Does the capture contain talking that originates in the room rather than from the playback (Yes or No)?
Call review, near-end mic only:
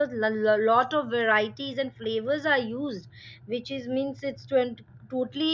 Yes